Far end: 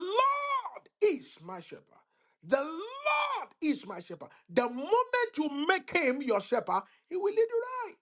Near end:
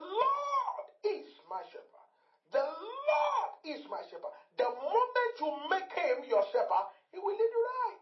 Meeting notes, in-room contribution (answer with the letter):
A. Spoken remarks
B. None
B